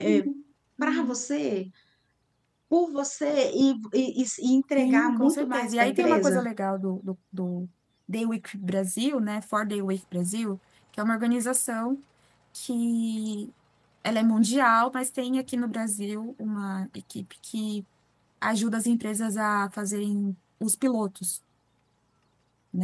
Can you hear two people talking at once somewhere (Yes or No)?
Yes